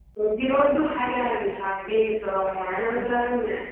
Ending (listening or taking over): taking over